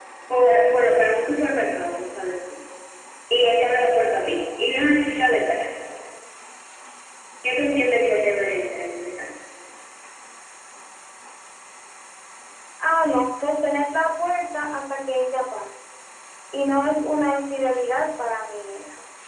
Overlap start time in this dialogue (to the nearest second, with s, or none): none